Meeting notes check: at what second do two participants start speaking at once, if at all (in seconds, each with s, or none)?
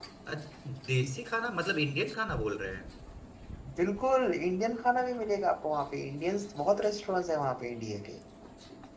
none